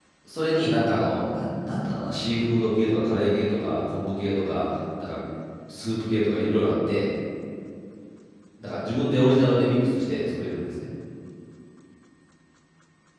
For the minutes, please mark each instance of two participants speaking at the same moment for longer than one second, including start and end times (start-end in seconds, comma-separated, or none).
none